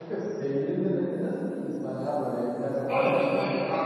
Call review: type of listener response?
taking over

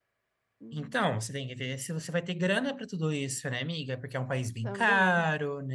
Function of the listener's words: listening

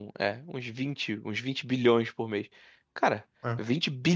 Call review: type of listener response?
listening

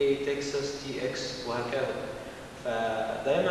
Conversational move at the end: listening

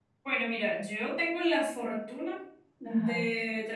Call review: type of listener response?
listening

